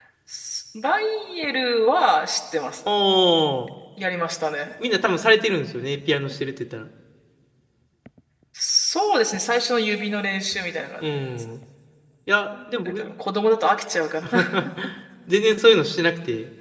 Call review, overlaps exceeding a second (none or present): none